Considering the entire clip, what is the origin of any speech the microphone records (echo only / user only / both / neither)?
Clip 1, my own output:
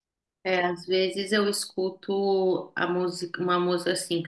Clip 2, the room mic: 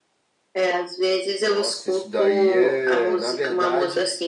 both